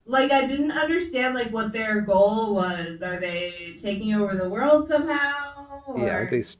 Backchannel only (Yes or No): No